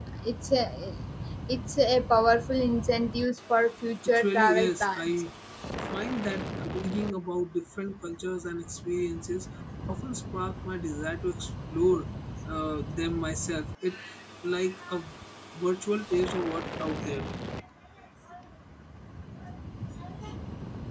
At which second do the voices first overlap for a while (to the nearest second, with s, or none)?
4 s